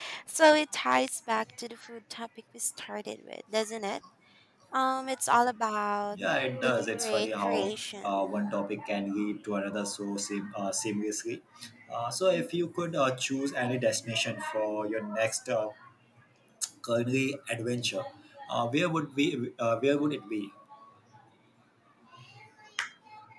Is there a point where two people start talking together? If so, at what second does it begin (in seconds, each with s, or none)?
6.6 s